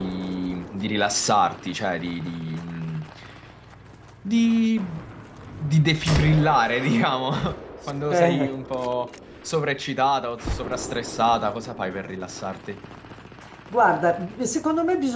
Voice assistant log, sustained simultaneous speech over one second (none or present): none